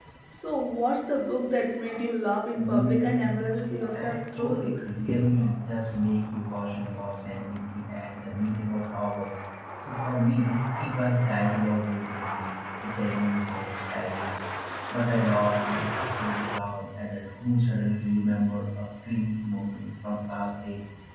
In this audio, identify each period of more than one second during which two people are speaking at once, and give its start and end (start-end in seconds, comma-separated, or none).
2.6-4.8